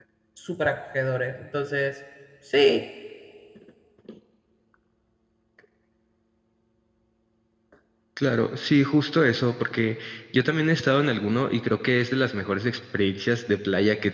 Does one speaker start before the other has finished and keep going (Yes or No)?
No